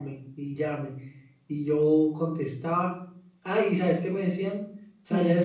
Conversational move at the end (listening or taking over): listening